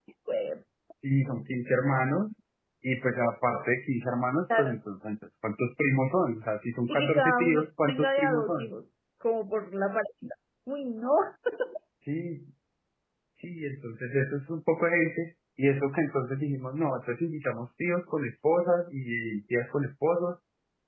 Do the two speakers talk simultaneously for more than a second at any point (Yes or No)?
Yes